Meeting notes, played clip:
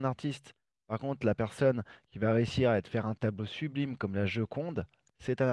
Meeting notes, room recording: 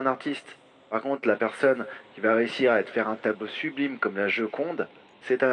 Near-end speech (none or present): none